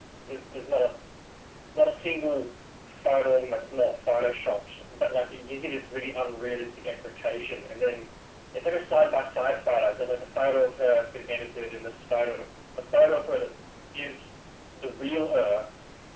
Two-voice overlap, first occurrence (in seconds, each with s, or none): none